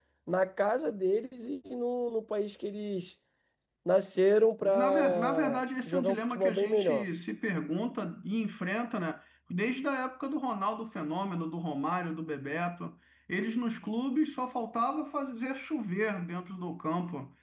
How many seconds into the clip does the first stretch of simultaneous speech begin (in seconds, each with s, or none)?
4.7 s